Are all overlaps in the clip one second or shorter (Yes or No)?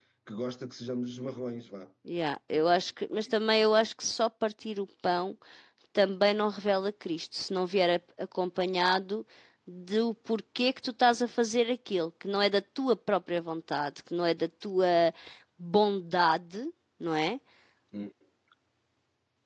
Yes